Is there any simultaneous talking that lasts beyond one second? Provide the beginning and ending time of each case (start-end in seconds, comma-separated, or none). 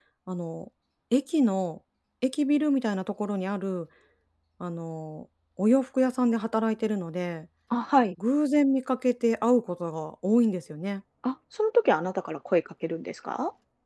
none